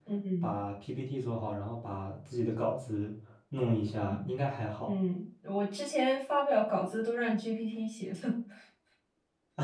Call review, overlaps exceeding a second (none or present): none